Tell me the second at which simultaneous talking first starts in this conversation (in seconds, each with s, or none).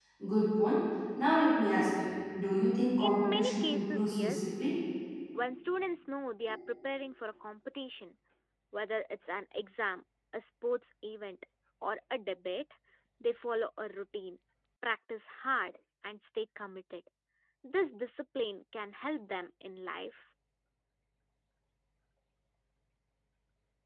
3.0 s